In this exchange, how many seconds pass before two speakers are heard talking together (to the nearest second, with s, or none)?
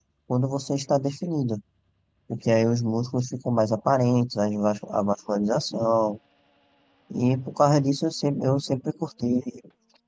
none